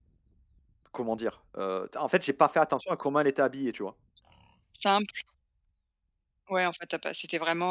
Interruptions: none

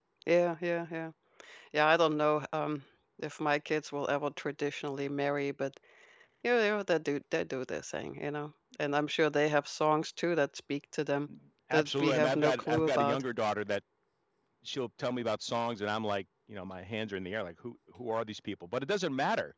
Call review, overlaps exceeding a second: present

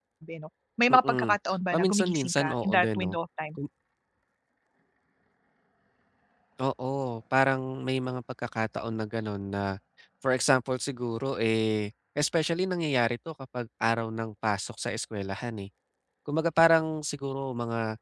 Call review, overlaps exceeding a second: present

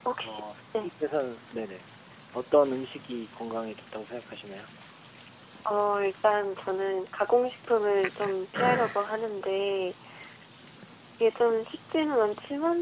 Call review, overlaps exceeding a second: none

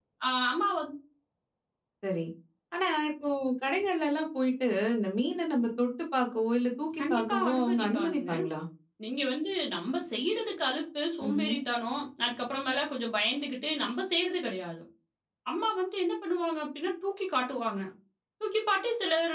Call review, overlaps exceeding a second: present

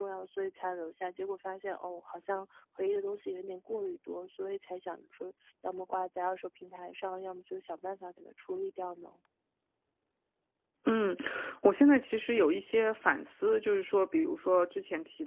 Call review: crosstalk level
none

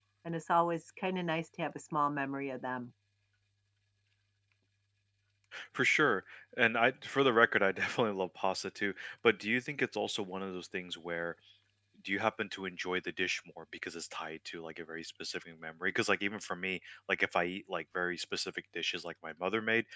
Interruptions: none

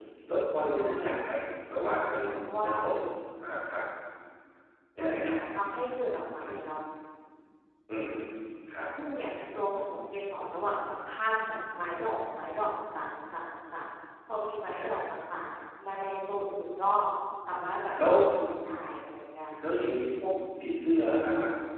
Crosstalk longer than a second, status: none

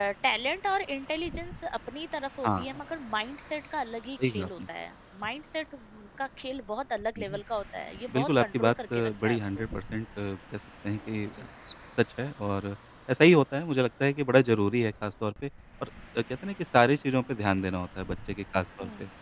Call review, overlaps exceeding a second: present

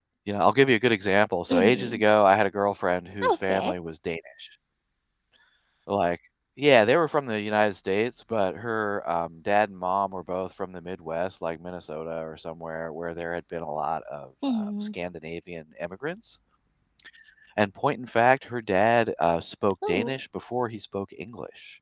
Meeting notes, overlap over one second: none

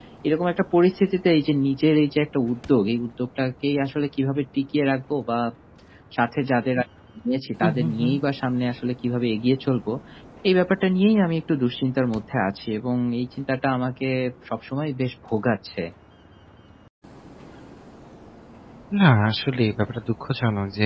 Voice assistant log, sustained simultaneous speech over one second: none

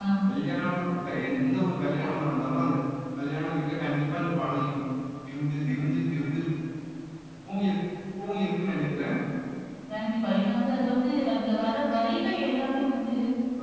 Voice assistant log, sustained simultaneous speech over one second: none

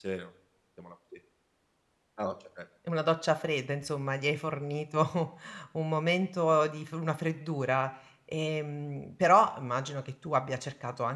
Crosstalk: none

